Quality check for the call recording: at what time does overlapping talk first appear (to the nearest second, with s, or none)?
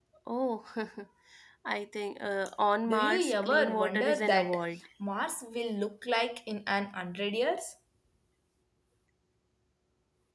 3 s